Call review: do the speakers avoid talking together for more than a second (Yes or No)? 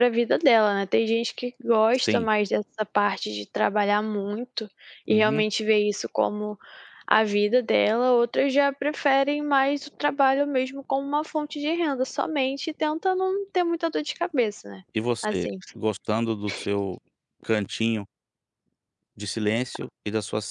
Yes